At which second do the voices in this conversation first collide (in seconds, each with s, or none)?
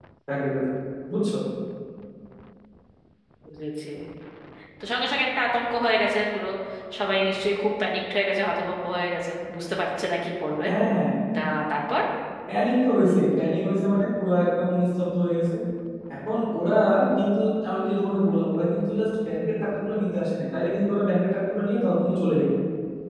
none